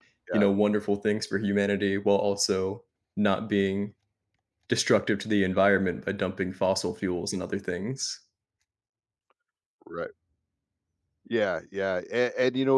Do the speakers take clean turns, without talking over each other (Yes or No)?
Yes